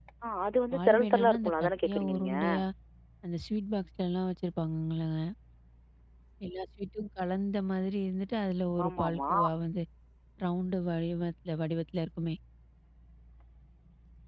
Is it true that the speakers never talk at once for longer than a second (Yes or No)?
No